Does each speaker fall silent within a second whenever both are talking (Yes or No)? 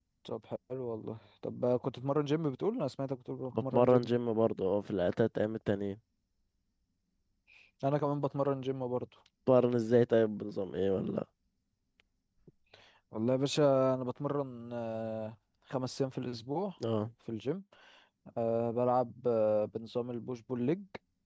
Yes